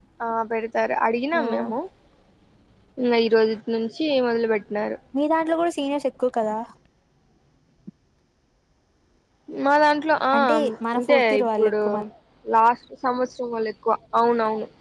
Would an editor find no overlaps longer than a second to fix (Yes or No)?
No